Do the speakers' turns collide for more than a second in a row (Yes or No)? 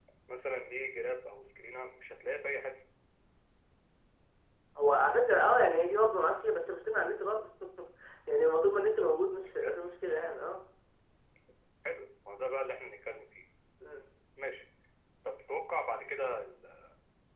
No